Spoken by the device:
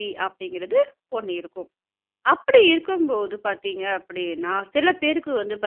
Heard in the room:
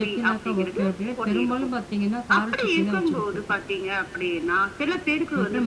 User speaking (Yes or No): Yes